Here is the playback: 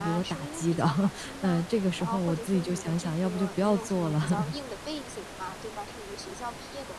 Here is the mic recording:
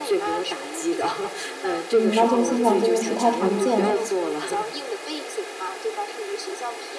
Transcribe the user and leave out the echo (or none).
嗯，那这种现象真的是太常见了。